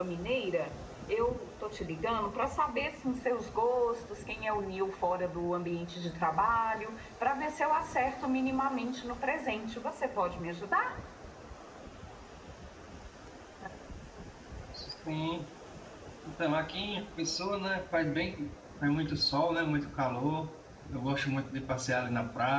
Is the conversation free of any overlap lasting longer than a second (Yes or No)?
Yes